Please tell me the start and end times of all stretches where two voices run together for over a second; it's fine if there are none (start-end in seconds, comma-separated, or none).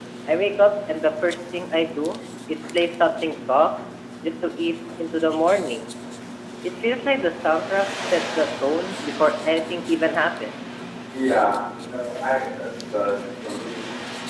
none